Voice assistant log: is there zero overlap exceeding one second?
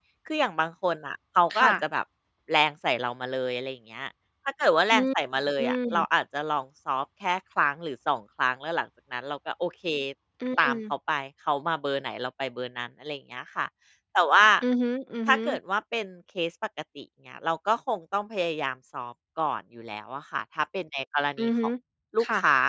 Yes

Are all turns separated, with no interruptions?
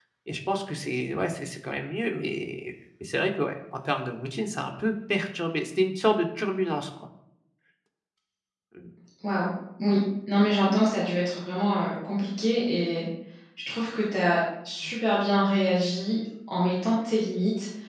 Yes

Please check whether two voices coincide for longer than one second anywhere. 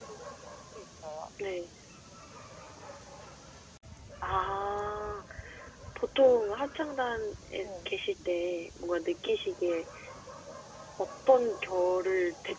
No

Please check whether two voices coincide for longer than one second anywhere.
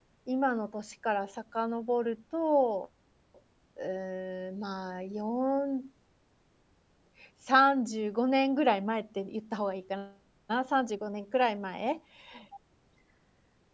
No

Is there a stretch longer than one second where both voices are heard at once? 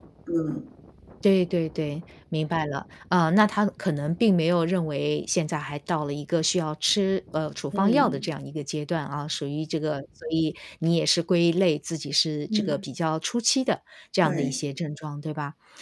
No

